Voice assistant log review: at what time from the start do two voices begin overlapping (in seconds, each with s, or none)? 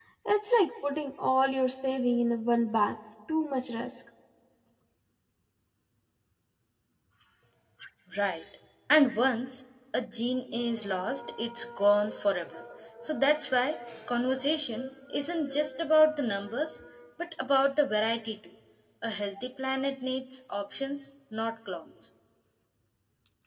none